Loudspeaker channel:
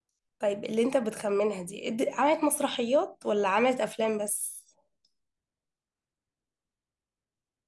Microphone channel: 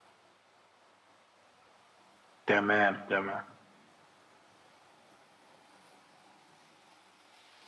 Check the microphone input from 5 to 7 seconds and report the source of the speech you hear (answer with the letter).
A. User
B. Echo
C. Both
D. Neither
D